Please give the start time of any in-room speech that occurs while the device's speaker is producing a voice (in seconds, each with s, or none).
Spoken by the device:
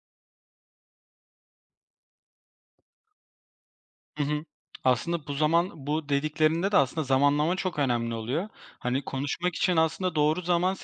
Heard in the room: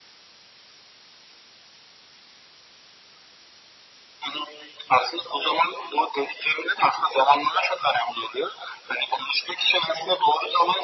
none